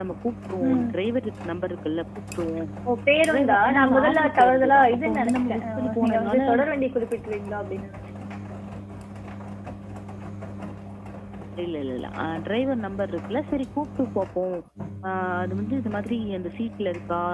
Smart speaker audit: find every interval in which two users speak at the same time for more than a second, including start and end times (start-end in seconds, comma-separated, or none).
3.3-6.4